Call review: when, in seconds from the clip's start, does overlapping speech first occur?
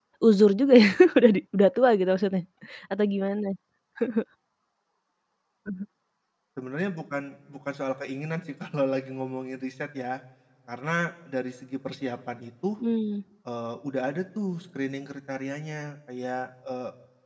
none

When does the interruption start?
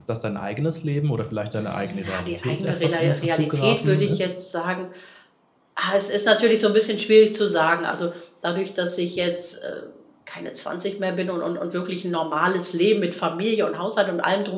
1.5 s

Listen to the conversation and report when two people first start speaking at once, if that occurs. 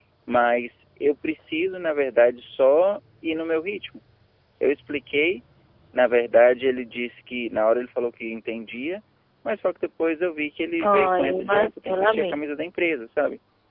10.8 s

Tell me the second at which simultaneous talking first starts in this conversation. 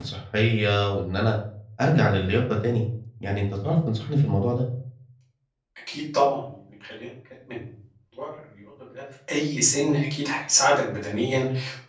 none

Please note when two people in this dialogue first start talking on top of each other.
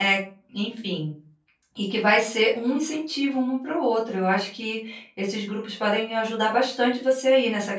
none

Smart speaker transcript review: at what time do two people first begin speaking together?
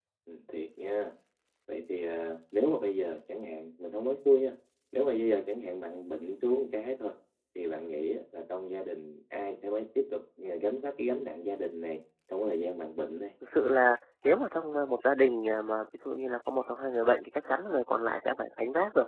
none

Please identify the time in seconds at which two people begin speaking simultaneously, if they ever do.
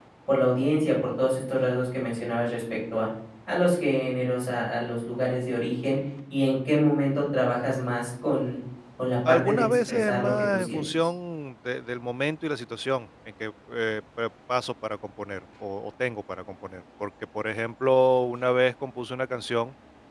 9.2 s

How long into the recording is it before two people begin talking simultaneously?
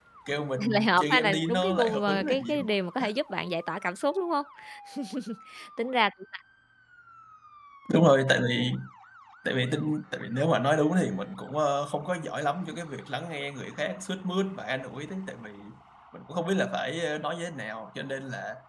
0.7 s

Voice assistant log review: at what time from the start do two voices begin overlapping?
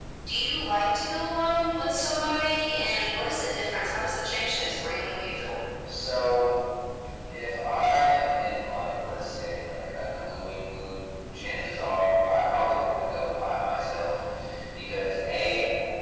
none

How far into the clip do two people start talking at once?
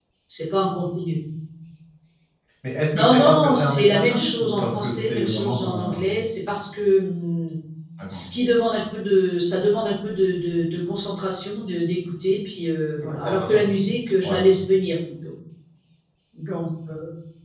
2.9 s

